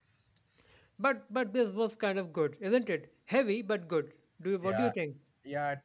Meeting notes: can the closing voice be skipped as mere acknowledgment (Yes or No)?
No